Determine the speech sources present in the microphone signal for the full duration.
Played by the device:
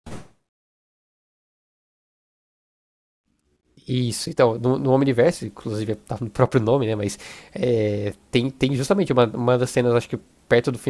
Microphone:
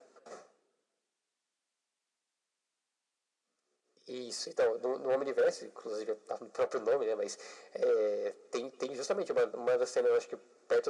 echo only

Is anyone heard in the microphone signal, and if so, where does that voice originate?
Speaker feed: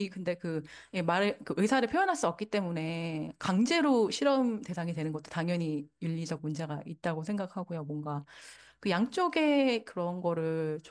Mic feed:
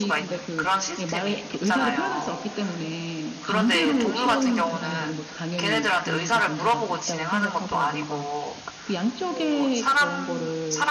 both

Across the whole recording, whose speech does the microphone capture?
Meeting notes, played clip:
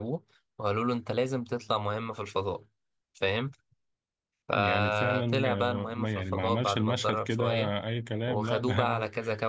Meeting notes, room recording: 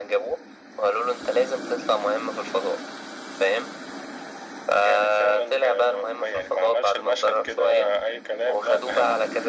echo only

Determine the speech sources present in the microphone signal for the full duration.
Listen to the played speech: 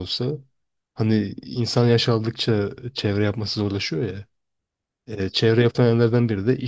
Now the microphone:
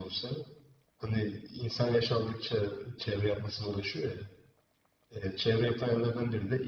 echo only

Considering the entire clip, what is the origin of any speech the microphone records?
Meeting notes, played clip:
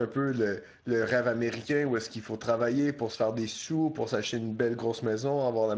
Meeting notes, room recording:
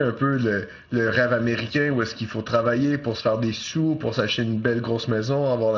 echo only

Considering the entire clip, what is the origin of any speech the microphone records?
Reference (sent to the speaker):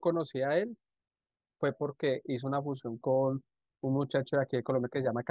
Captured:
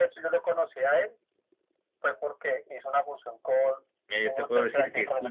both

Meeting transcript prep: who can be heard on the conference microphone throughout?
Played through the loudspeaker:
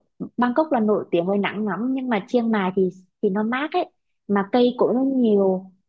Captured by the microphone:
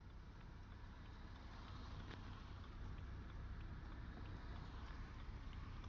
neither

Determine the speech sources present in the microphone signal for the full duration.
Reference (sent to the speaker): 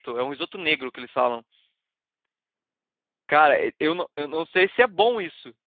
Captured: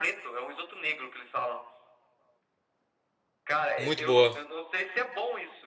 both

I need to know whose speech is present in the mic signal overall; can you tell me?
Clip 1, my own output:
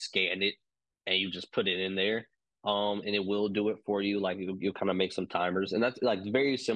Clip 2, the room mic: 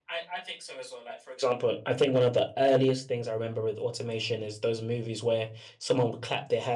user only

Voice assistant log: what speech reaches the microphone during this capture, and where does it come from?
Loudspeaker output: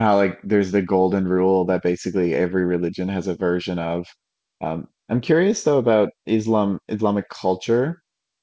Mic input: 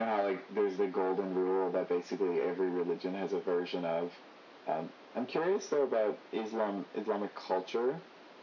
echo only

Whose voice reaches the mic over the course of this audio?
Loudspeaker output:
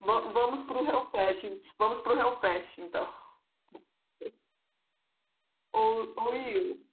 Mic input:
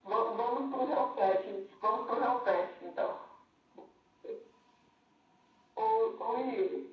echo only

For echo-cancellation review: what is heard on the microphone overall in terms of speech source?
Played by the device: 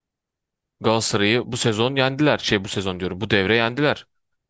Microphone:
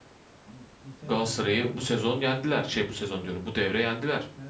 both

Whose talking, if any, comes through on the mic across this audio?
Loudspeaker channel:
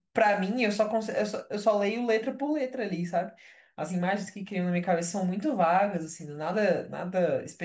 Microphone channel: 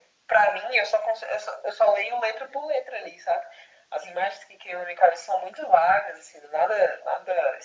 echo only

